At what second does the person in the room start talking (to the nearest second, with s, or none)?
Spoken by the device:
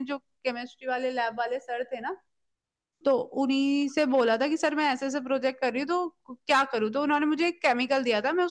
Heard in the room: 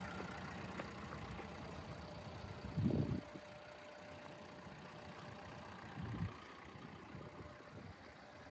none